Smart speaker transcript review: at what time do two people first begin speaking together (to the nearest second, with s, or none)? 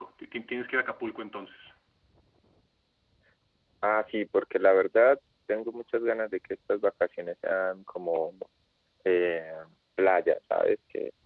none